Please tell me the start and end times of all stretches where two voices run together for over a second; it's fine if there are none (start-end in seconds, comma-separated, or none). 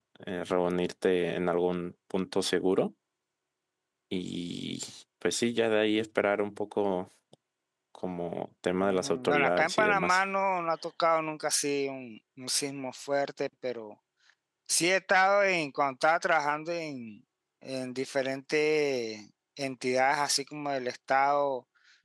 8.8-10.2